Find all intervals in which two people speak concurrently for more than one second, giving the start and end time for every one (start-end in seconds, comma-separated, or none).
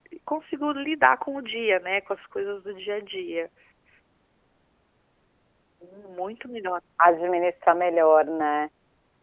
none